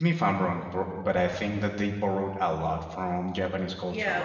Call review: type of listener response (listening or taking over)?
taking over